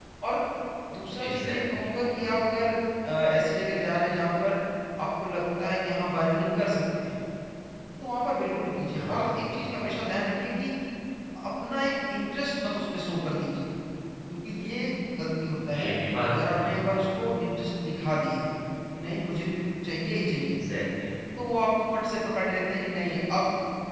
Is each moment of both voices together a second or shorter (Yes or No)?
No